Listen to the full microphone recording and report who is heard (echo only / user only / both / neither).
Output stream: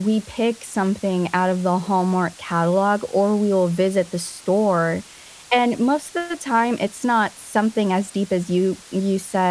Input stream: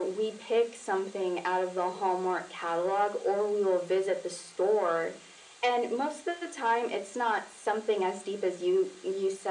echo only